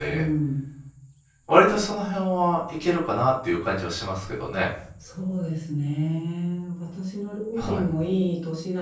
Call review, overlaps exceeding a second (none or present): none